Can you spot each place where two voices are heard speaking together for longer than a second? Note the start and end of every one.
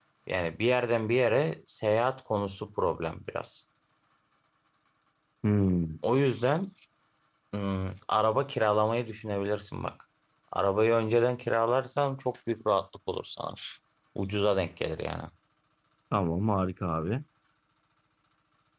none

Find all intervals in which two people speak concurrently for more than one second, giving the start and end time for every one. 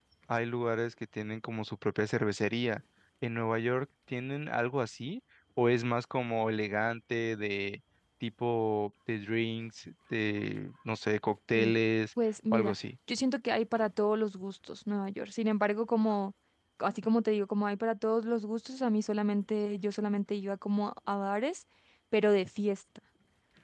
none

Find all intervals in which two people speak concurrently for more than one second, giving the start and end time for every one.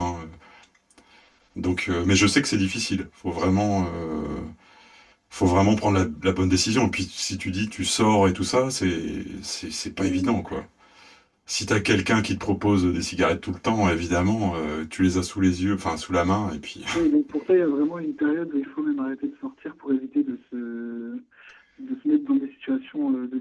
none

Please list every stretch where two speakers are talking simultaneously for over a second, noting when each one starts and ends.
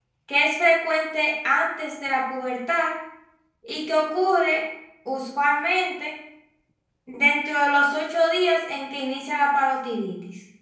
none

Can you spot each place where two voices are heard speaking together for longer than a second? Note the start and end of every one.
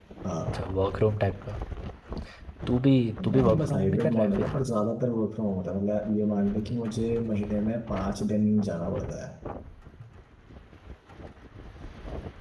3.2-4.6

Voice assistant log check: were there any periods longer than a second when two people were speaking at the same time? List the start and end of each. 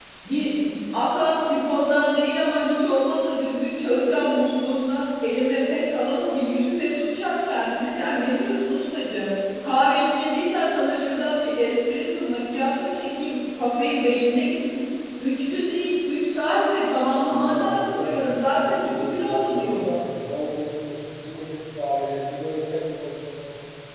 17.3-20.0

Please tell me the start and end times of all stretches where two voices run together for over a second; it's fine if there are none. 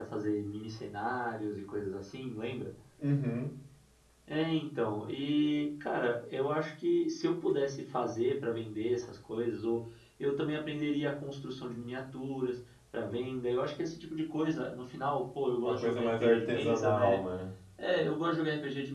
15.6-17.2

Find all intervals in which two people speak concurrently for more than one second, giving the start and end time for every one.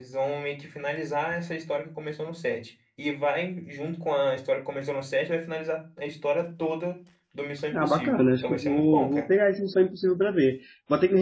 7.7-9.3

